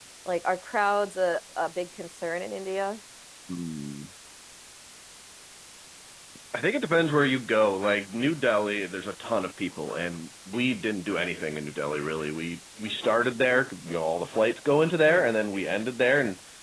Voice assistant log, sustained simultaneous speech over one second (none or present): none